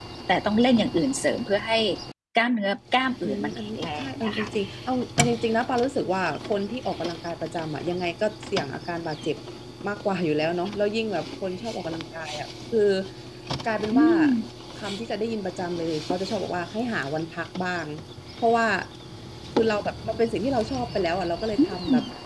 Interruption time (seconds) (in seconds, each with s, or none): 3.2 s